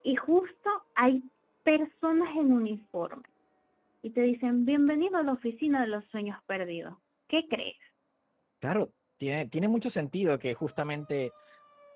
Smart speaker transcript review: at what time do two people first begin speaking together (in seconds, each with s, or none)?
none